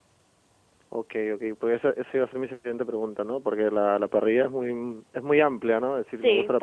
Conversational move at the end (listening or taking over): taking over